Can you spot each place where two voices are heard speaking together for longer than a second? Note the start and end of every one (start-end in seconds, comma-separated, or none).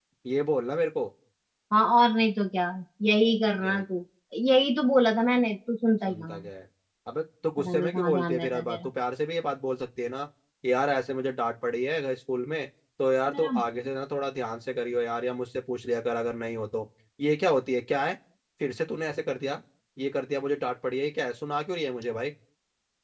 7.6-8.9